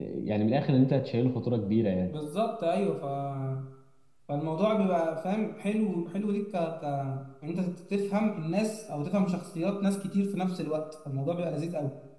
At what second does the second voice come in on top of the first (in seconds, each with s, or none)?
none